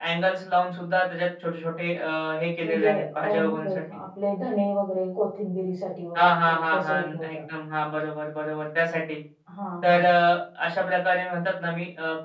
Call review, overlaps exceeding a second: present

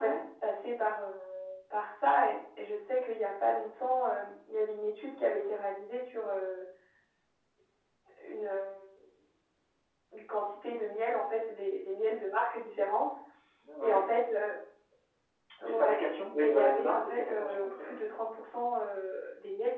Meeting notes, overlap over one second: present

